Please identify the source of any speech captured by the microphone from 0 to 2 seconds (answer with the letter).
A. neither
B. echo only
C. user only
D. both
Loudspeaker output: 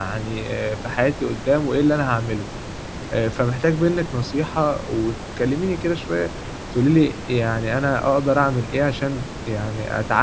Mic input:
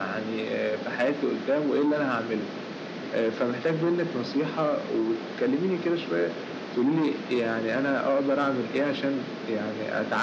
B